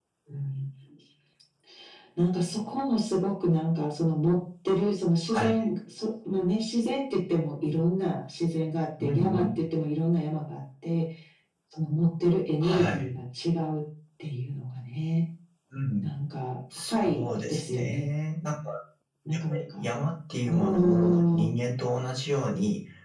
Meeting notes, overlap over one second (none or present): present